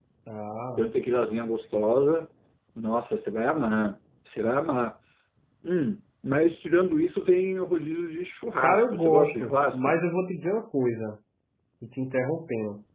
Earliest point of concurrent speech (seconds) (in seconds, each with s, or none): 8.6 s